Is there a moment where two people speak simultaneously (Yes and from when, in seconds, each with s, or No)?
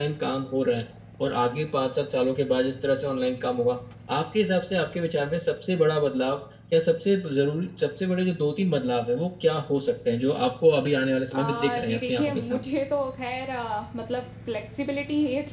Yes, from 11.3 s